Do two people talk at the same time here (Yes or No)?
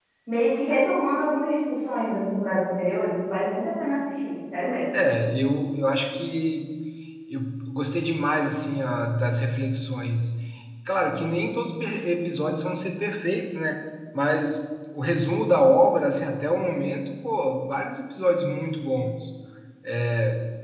No